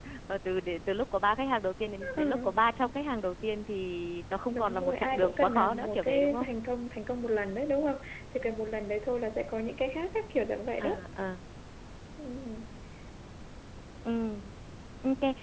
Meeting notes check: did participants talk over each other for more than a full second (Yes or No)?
Yes